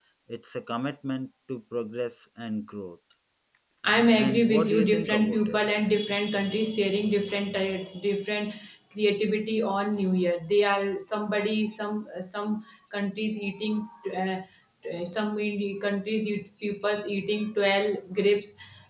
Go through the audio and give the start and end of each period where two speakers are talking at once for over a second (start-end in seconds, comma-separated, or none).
4.1-5.6